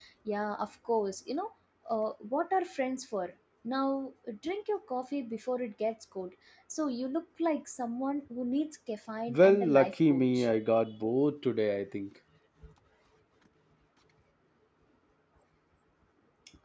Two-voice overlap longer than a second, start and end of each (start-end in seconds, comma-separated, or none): 9.3-10.5